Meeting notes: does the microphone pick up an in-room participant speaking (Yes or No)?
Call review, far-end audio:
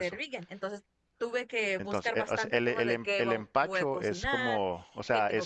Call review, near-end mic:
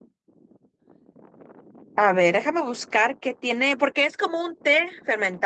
Yes